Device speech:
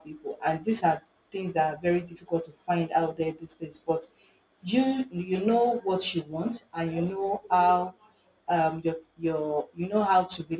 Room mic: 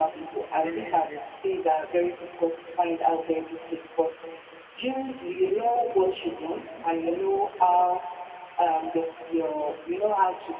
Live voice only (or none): I believe you.